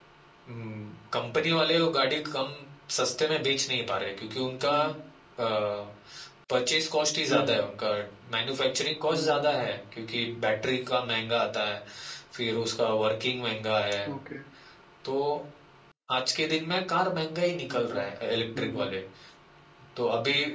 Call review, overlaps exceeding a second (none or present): none